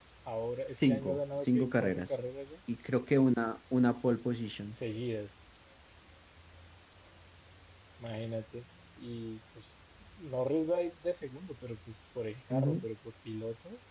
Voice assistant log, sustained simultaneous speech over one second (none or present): present